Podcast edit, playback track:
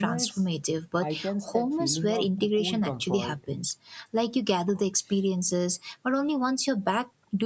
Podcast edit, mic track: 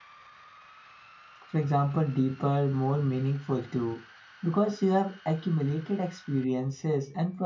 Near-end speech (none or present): present